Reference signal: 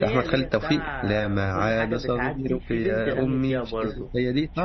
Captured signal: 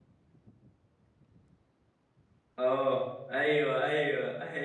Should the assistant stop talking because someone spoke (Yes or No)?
Yes